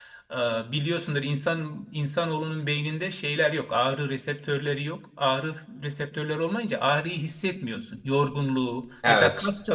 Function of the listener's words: listening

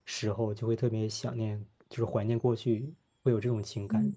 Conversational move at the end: taking over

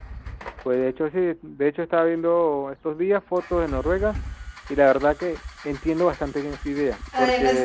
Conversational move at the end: taking over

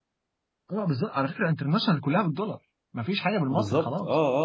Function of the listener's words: taking over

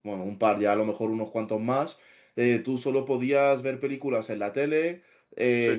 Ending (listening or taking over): listening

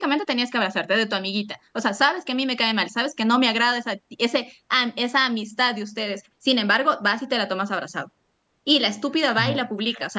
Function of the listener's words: listening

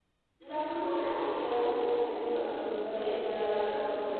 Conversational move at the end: listening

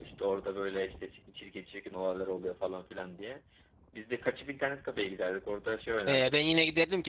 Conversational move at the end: taking over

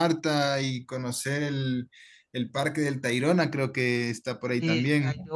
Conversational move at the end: taking over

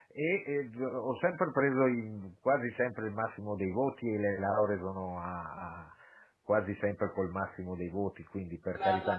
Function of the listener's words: taking over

